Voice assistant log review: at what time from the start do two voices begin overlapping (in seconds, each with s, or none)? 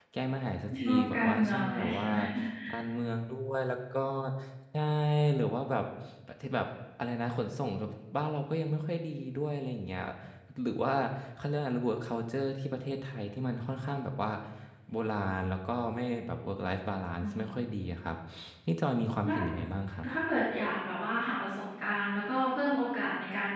0.8 s